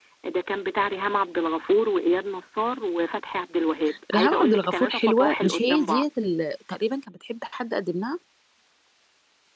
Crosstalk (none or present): present